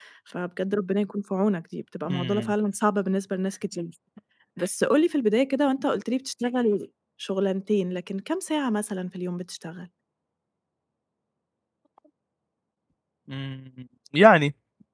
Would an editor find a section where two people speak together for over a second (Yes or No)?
No